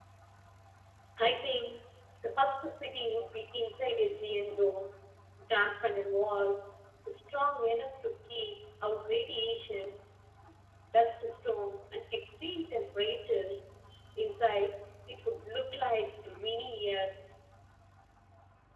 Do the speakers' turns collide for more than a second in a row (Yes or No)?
No